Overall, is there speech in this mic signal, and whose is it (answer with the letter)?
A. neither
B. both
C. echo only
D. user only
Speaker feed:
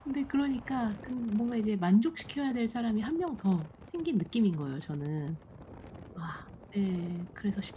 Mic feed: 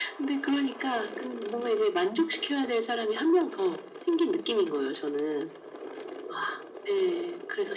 C